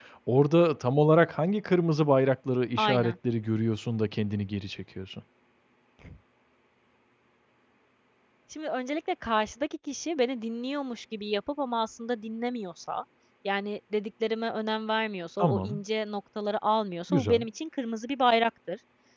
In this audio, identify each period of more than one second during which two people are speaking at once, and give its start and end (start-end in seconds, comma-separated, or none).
none